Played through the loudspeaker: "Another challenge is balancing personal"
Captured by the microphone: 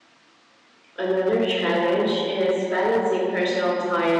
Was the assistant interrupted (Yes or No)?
No